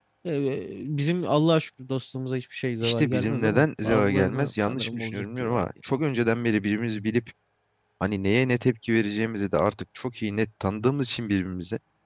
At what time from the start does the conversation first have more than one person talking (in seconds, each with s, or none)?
2.8 s